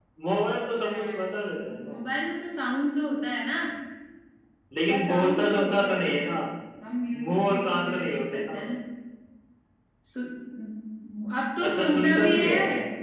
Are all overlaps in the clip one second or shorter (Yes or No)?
No